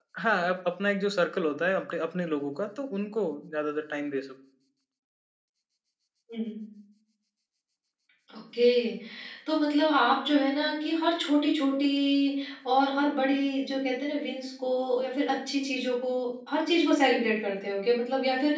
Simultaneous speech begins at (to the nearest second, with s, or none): none